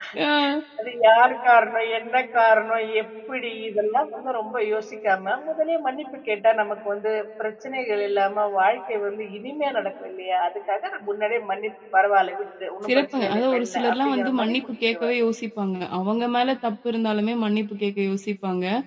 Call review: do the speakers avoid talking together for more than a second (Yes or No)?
No